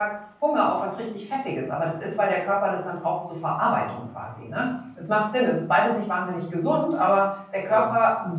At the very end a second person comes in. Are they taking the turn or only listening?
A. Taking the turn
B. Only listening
B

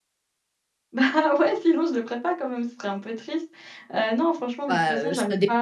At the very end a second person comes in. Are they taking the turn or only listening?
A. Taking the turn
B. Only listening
A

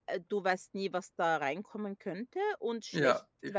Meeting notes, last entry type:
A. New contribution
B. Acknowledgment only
B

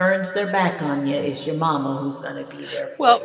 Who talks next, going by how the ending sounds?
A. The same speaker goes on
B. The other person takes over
B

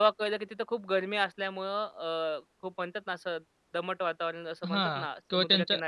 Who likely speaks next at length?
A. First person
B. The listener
B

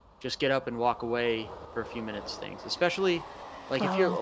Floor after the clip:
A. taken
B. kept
B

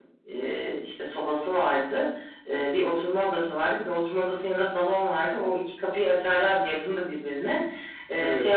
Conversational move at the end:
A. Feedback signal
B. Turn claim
A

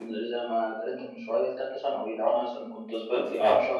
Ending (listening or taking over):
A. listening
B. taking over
A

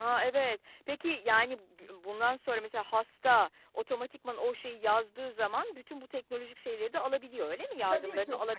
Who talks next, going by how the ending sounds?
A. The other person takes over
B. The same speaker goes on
A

